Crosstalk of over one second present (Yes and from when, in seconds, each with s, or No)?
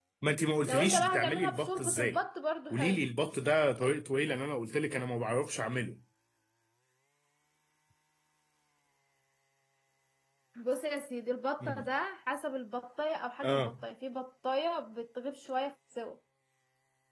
Yes, from 0.7 s